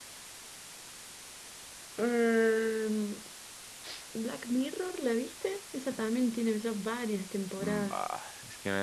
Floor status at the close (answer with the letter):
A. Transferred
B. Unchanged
A